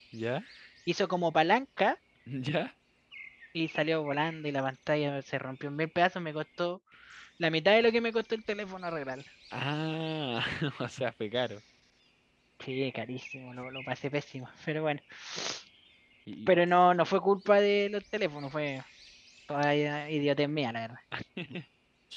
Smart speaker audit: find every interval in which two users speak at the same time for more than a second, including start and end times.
none

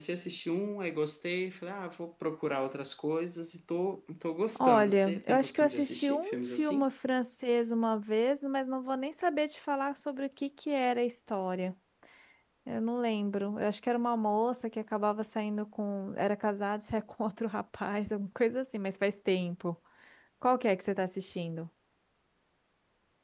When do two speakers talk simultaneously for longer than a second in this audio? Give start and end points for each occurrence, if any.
4.6-6.9

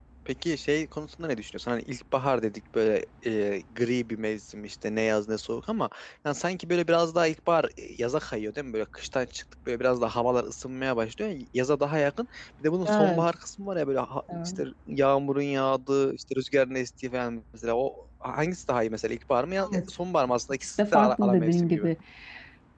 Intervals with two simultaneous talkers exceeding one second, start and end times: 20.6-21.9

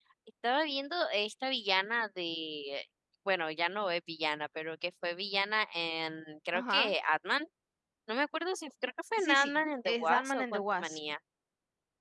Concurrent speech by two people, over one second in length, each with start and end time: 9.2-11.0

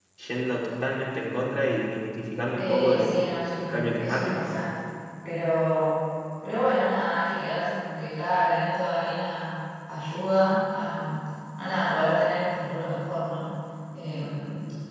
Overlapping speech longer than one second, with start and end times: 2.6-4.5

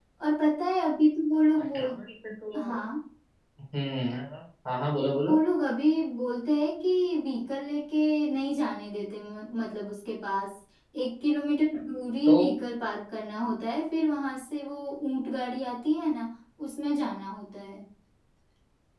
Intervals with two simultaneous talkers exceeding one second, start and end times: none

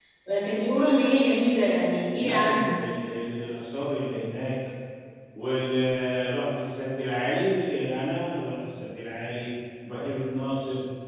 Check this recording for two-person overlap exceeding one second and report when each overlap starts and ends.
none

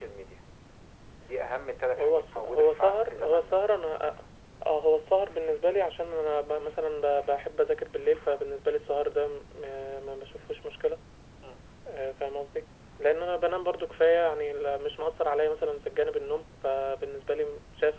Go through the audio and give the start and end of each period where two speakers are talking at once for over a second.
2.0-3.5

